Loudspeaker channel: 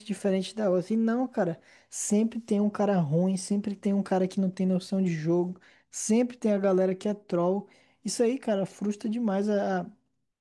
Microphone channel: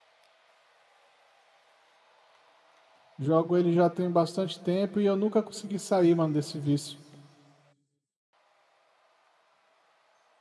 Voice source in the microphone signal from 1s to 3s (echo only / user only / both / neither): neither